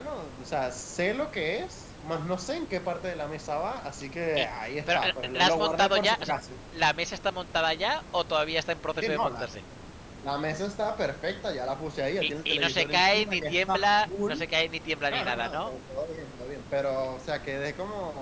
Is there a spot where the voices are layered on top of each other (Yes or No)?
Yes